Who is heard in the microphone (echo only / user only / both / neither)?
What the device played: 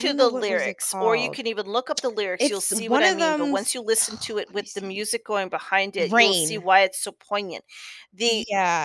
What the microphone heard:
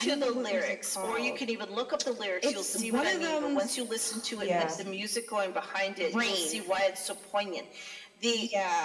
both